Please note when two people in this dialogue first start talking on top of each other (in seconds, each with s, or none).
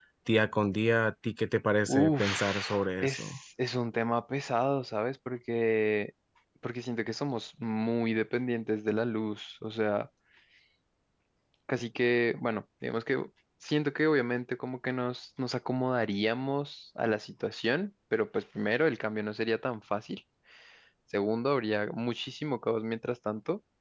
1.9 s